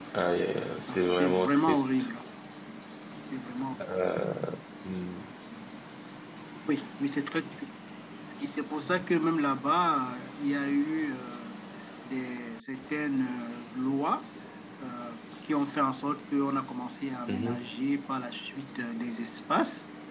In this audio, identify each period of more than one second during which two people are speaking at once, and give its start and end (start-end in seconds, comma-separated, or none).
0.9-2.1